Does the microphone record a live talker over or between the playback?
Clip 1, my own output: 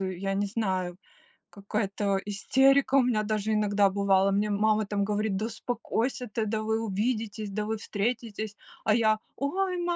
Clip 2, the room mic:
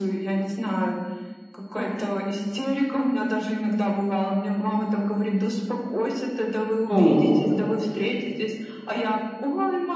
Yes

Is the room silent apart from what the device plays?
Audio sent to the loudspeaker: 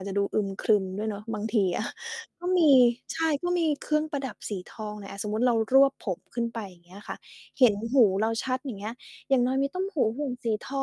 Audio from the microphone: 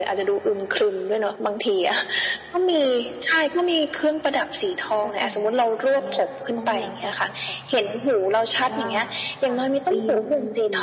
No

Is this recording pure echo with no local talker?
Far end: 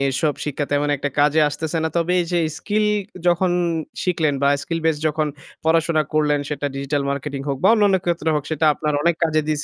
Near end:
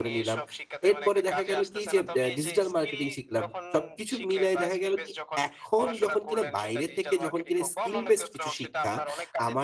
No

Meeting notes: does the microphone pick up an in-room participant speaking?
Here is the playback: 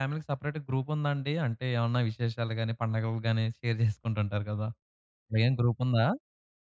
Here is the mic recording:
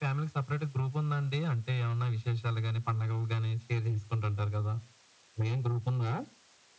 No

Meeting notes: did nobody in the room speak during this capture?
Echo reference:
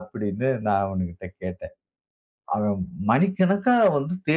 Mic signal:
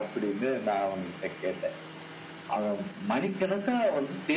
Yes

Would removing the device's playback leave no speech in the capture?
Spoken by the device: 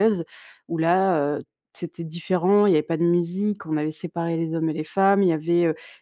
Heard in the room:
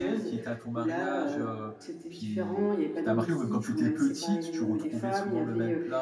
No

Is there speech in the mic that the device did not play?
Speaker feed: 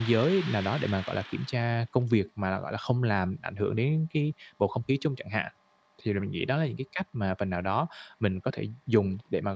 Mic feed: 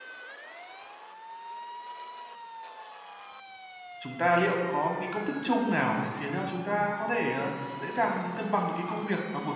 Yes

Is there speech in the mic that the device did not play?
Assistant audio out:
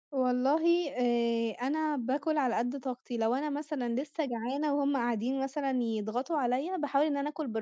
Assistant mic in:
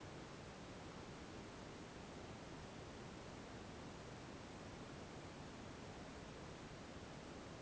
No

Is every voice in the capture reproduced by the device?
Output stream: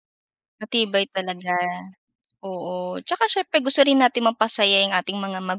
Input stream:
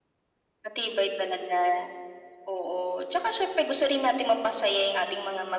Yes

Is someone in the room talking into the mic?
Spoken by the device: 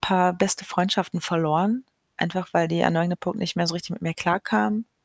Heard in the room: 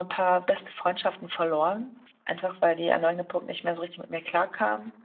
No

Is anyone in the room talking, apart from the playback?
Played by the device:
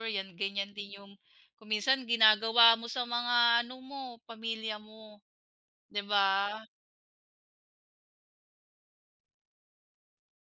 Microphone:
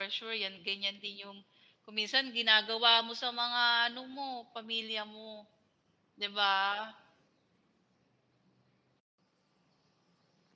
No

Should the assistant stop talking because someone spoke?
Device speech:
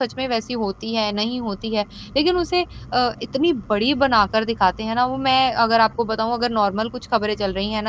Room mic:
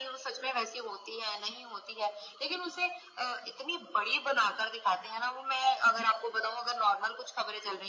No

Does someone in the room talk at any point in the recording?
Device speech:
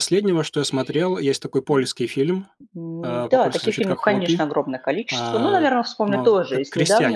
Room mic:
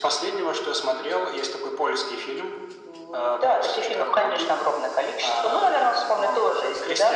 No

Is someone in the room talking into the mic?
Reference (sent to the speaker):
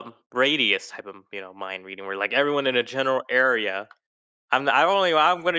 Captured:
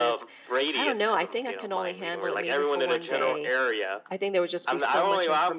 Yes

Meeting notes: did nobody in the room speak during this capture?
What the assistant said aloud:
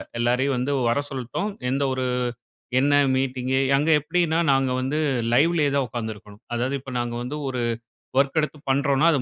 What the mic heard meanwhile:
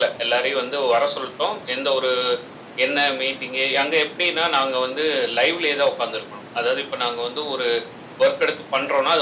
Yes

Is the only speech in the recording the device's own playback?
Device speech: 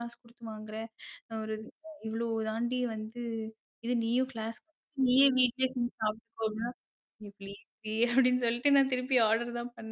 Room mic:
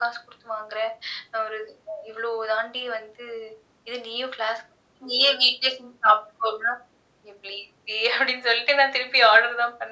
Yes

